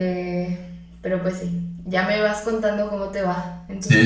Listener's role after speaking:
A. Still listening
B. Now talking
B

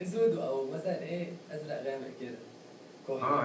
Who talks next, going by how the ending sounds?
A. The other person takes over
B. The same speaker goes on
A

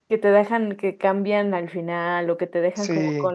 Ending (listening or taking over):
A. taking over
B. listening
A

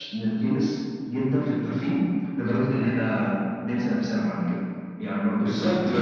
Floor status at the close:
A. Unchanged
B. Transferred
B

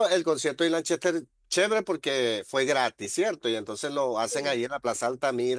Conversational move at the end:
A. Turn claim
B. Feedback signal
B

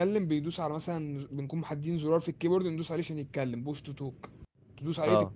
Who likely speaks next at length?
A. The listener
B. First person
B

